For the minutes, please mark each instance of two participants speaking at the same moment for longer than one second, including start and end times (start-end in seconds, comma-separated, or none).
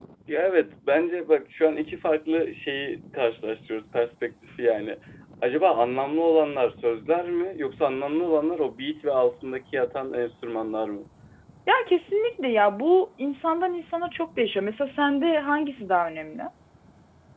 none